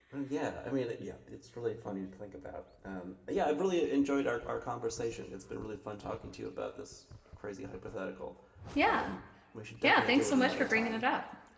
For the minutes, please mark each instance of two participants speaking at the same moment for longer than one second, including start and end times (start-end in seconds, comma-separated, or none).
9.8-11.0